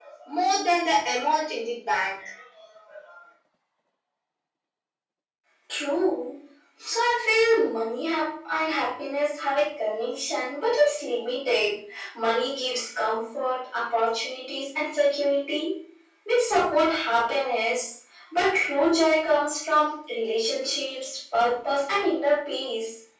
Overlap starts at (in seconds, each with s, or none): none